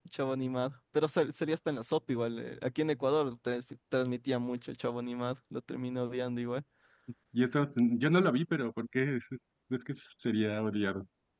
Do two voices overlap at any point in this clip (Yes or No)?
No